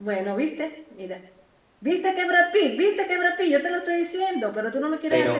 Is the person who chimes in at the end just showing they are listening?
No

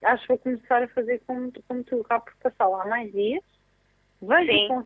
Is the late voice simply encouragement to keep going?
Yes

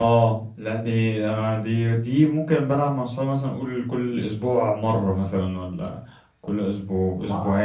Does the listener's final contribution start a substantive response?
Yes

